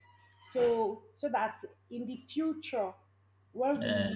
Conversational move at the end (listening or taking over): listening